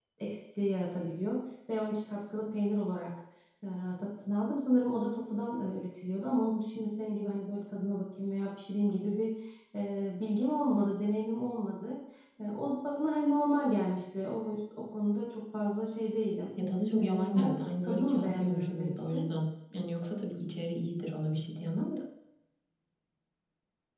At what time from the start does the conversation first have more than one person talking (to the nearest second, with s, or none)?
17 s